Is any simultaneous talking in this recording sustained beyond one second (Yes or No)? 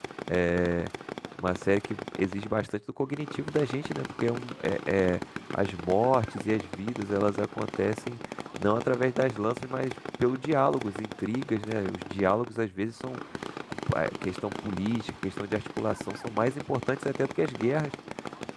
No